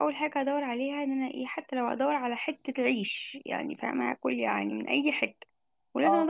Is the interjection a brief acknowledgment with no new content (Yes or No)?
Yes